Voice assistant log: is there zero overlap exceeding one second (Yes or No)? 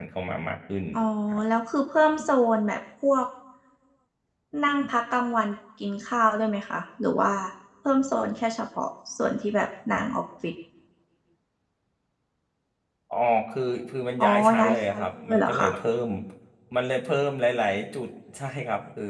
No